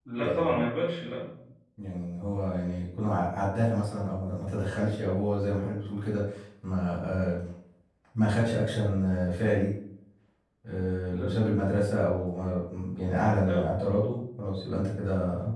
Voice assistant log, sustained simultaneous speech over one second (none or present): none